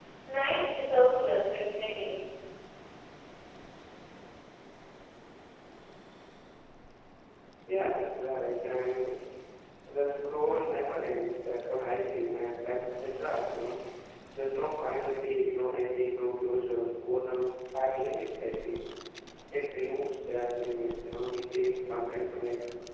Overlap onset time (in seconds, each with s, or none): none